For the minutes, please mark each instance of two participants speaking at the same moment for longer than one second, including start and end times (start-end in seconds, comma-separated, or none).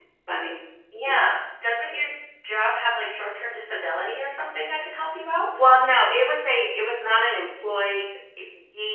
none